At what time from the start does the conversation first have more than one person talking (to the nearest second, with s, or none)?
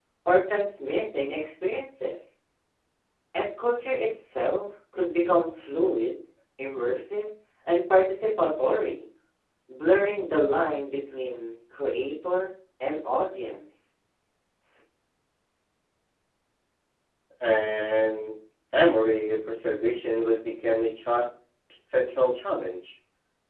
none